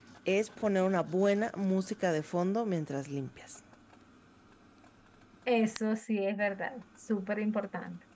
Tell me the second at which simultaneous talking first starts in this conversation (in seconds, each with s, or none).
none